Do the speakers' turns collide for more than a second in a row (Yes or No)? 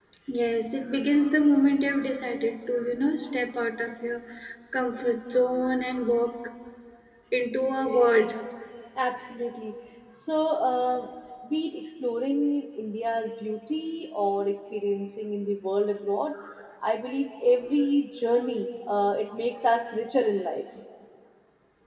No